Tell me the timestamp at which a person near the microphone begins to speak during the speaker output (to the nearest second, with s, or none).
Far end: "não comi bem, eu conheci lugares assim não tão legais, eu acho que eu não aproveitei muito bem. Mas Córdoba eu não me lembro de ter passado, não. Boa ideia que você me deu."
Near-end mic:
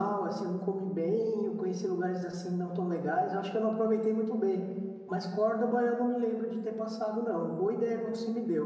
none